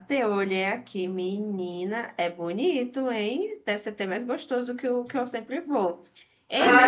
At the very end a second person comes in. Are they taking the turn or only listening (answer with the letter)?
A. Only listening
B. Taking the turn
B